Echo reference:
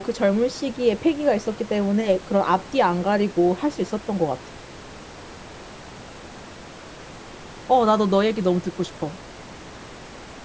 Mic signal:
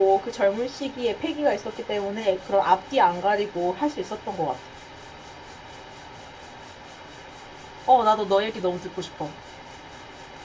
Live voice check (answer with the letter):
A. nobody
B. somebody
A